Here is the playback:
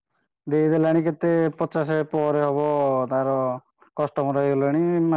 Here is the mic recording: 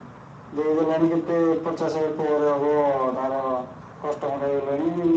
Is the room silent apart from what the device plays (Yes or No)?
Yes